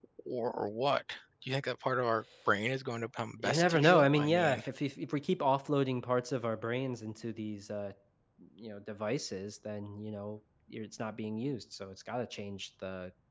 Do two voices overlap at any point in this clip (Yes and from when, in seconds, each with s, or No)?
Yes, from 3.4 s